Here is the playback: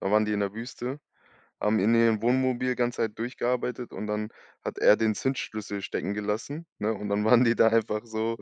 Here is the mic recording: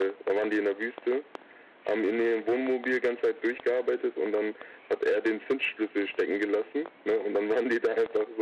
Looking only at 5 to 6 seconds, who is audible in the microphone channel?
echo only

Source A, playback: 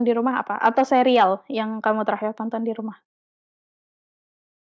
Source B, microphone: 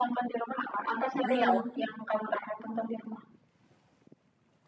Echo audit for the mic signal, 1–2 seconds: both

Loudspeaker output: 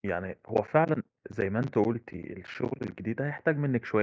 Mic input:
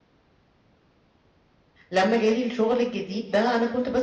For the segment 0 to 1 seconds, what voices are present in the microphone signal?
neither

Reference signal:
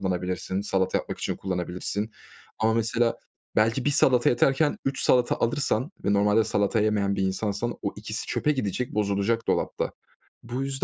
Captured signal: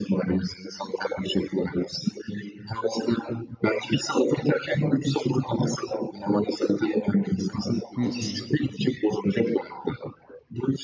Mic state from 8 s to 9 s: both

